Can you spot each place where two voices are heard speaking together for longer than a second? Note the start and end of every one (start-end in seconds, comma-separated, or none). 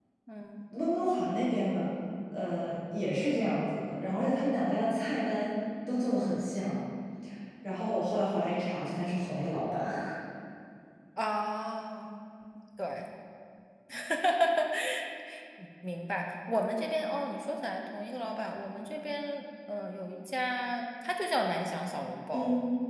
none